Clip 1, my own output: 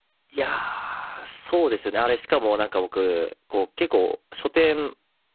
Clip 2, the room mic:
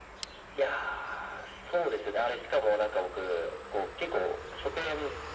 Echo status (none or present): present